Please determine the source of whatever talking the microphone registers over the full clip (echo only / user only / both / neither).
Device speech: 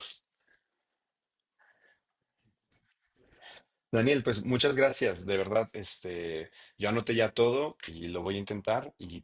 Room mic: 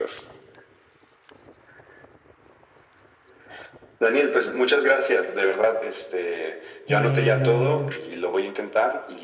both